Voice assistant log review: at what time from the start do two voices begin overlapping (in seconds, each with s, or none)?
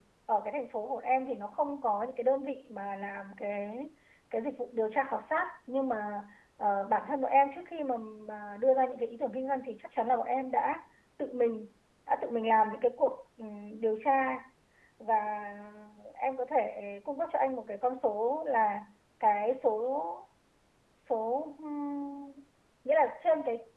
none